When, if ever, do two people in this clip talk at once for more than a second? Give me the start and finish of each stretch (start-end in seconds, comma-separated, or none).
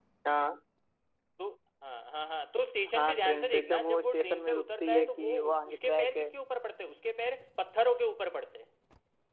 2.9-6.3